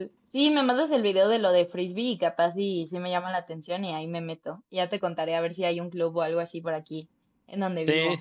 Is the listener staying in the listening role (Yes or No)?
No